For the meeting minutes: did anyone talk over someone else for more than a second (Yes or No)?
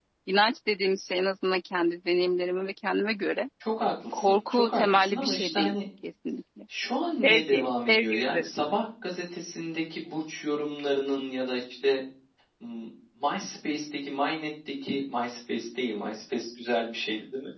Yes